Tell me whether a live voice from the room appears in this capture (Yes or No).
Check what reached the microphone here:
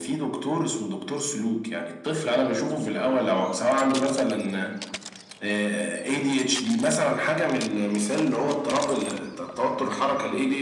No